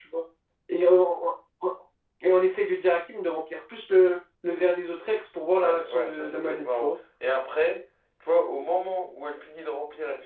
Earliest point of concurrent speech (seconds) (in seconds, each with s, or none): 5.6 s